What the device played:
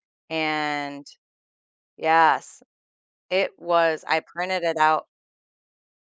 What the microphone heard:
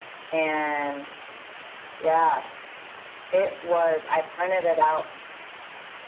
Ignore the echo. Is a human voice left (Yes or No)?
No